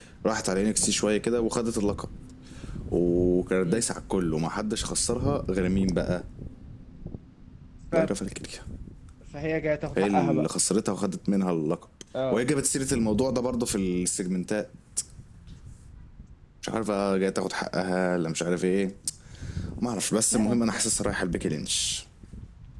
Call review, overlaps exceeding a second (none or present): none